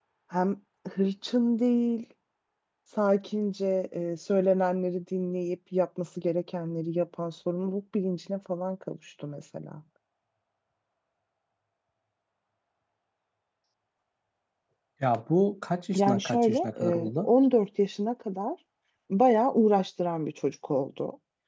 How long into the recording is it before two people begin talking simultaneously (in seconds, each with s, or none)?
15.9 s